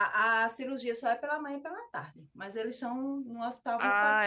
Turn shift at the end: Yes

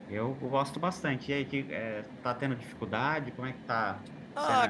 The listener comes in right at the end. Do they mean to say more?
Yes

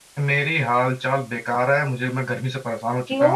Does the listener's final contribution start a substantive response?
No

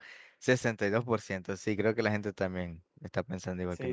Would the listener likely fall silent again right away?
No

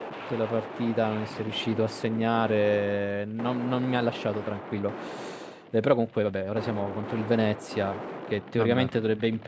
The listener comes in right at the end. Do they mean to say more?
No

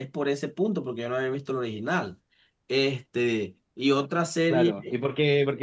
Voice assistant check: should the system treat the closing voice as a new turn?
Yes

